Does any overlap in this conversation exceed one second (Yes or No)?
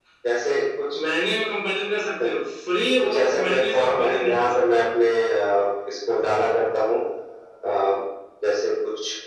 Yes